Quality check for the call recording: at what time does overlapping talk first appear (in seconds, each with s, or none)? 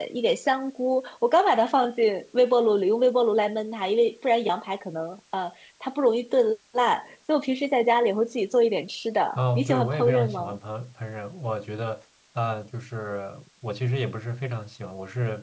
9.3 s